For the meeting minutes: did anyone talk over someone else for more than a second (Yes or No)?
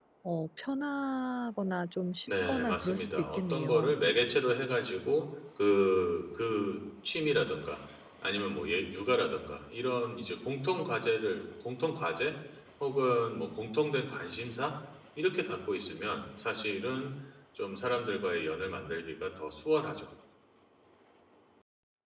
Yes